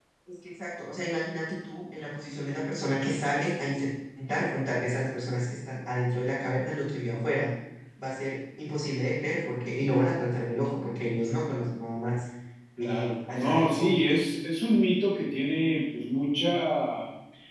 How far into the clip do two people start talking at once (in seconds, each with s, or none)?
12.8 s